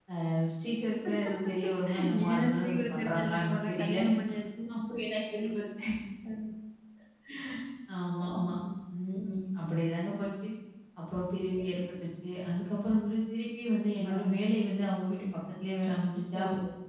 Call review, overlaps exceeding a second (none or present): present